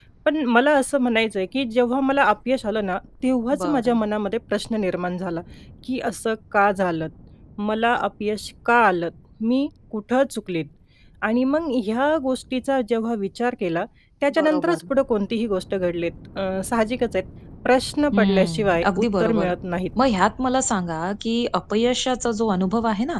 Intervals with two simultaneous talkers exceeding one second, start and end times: 18.1-19.5

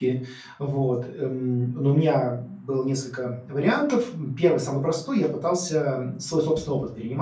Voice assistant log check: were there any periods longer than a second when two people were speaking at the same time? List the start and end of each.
none

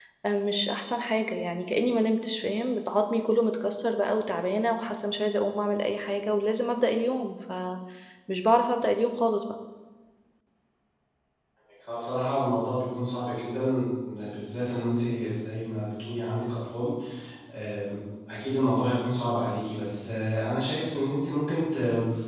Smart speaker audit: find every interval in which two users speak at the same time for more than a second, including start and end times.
none

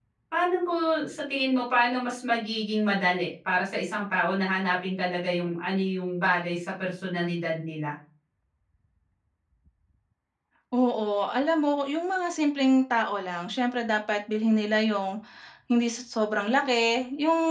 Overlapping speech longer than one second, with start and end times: none

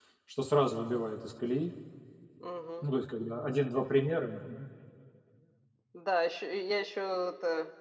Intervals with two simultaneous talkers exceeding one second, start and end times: none

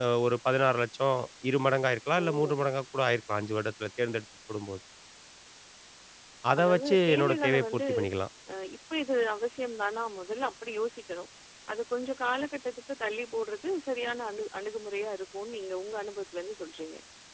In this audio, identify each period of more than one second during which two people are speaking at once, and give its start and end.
6.6-7.8

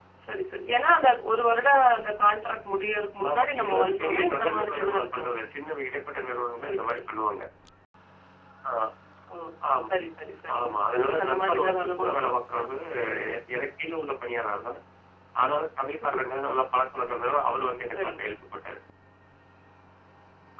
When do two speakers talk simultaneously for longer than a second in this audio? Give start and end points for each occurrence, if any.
3.3-5.4, 10.6-12.6

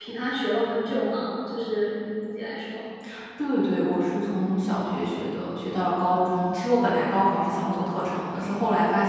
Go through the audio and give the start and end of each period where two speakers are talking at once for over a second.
none

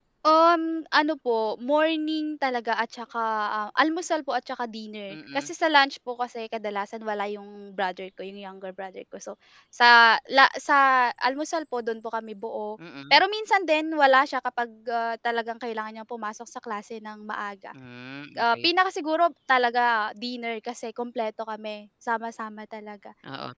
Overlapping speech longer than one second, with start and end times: none

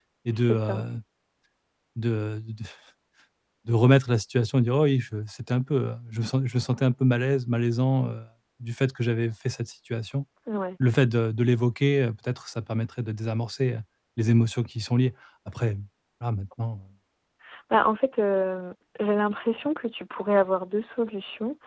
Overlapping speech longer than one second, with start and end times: none

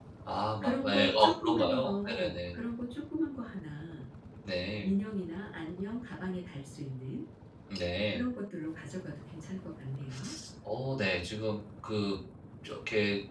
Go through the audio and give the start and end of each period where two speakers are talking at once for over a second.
0.6-2.6

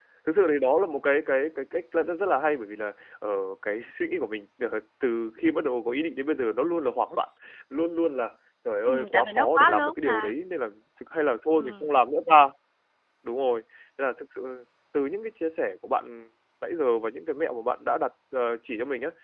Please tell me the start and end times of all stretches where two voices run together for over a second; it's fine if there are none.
8.9-10.3

